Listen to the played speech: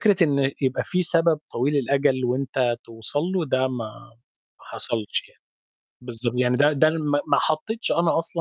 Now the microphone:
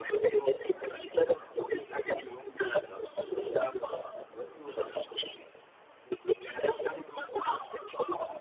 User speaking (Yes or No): Yes